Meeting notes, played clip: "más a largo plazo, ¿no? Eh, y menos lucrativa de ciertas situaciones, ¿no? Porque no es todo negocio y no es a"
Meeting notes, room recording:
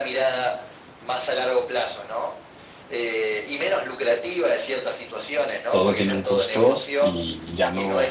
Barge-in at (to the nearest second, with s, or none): 6 s